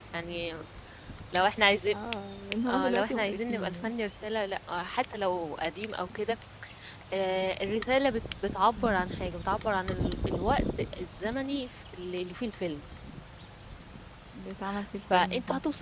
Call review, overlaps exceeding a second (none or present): present